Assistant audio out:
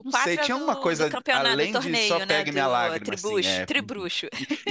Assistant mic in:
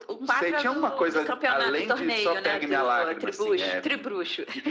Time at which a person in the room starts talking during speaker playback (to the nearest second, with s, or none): none